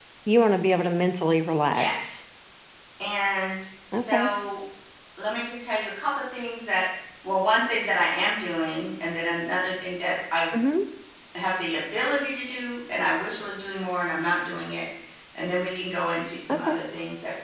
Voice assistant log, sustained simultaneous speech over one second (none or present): none